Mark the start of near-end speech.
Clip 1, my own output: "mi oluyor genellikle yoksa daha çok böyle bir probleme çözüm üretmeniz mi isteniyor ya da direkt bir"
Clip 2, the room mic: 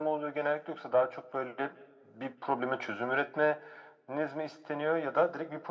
none

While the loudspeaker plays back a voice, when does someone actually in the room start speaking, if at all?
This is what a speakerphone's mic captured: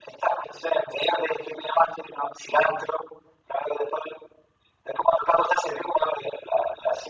none

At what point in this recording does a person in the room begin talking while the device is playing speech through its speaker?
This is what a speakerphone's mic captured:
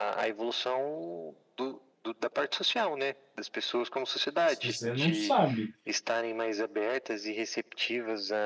4.5 s

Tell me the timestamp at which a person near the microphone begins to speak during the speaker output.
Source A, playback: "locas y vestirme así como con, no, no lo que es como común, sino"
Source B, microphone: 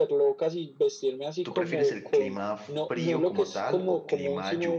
1.4 s

